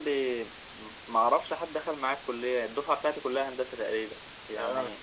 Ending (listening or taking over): listening